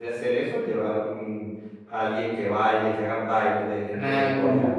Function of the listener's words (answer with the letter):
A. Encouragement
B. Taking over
B